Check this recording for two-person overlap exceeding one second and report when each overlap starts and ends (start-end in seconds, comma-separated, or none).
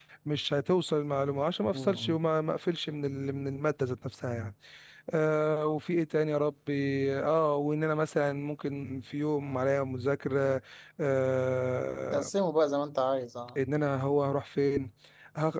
none